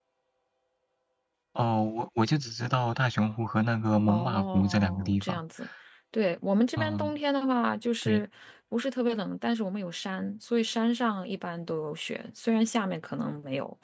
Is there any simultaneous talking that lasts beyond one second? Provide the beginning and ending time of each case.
4.1-5.4

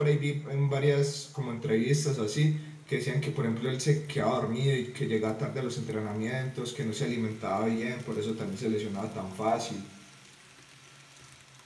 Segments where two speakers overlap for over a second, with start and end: none

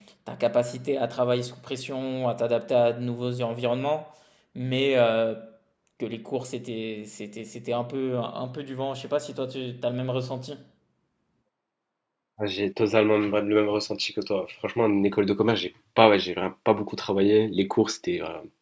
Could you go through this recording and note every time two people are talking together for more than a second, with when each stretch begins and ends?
none

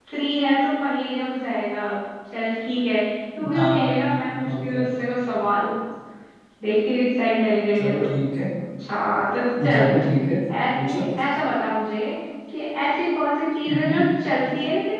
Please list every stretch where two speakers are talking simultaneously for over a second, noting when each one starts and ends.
3.6-4.8

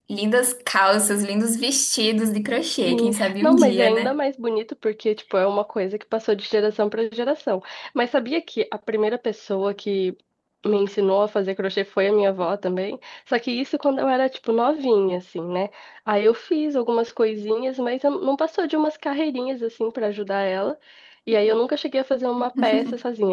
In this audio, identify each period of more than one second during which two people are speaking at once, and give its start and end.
2.9-4.1

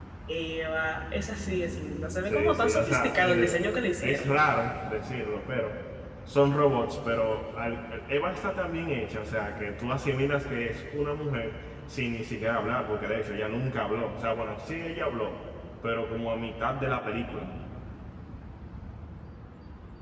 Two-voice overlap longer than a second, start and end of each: 2.3-3.6

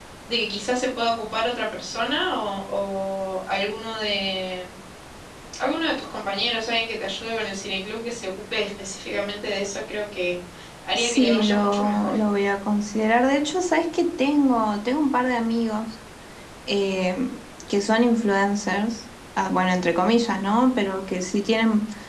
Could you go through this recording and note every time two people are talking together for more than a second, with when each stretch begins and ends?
10.9-12.2

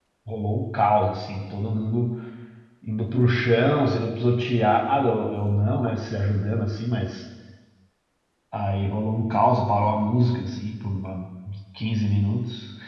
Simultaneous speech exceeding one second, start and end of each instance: none

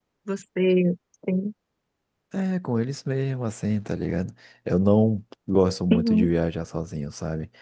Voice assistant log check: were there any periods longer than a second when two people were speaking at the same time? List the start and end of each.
none

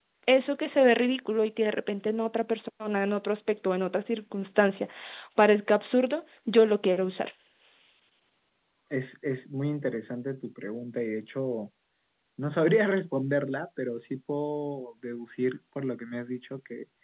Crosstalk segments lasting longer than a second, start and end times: none

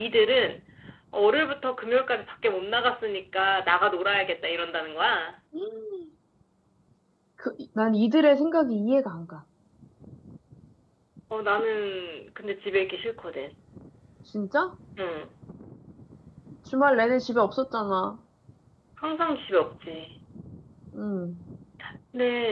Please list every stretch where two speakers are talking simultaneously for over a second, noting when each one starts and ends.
none

